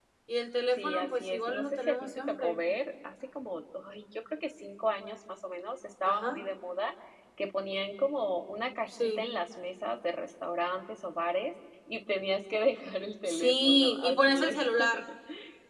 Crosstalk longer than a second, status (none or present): present